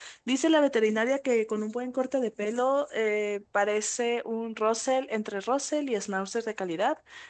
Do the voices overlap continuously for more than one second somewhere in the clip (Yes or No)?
No